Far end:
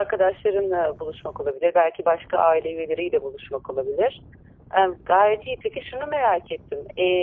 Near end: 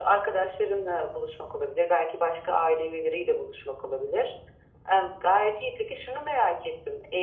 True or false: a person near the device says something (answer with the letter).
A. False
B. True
A